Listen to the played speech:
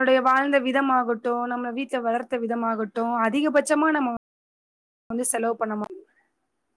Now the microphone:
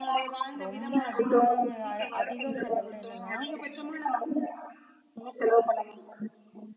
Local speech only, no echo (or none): ரொம்ப அதிகாரம் அதிகங்கறத விட என்னன்னா